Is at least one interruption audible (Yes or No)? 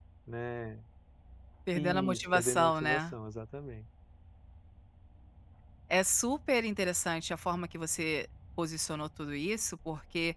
Yes